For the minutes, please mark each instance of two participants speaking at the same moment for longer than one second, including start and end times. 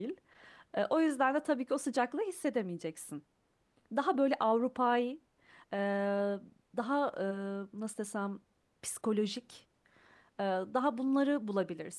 none

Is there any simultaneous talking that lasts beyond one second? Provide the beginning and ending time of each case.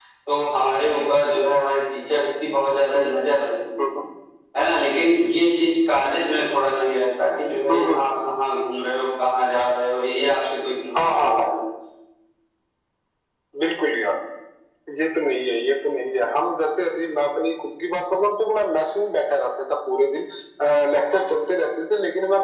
none

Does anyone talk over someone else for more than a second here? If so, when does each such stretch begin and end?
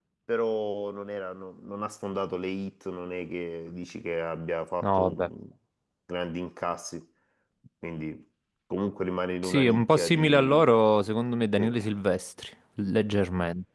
9.4-10.6

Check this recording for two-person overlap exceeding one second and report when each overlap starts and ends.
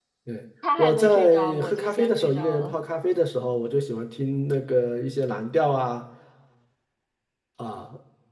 0.8-2.8

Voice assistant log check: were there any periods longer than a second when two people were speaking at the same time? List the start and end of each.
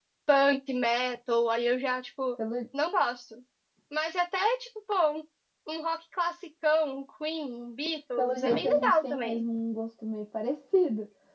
8.2-9.4

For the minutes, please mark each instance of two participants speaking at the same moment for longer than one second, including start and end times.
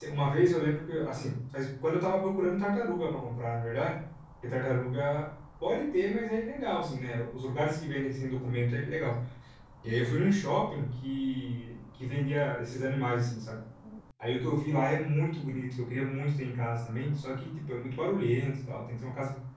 none

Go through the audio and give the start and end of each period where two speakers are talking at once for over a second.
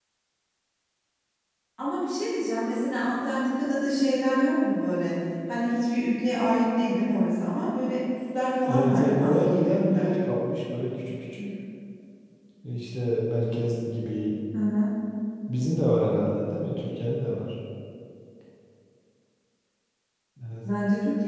8.7-10.1

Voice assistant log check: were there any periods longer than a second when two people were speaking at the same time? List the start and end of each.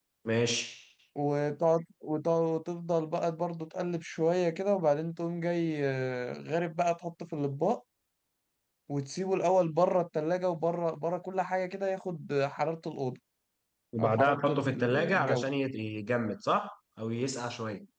14.0-15.4

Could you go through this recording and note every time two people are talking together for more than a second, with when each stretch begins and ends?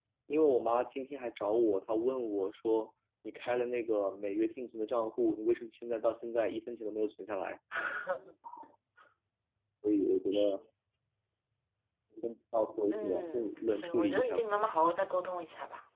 12.9-14.4

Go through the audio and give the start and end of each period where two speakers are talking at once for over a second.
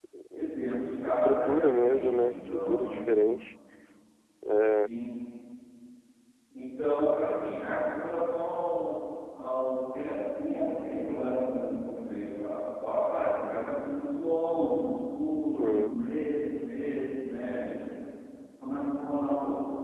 1.1-3.0

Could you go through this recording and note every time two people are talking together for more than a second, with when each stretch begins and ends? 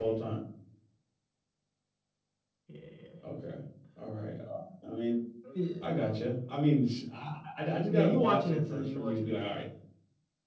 7.9-9.6

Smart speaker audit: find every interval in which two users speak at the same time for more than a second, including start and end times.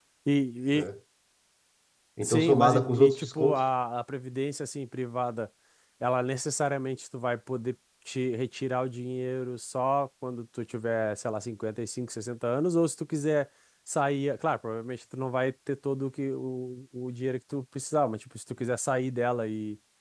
2.2-3.6

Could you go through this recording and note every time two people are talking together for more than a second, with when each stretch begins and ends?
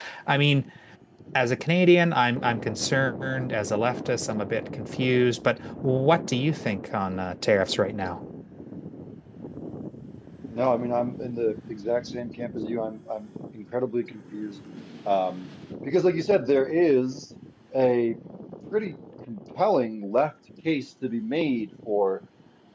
none

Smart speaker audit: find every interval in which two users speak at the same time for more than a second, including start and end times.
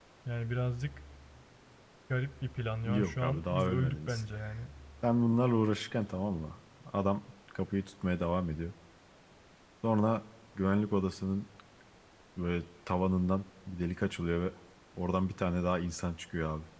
2.9-4.2

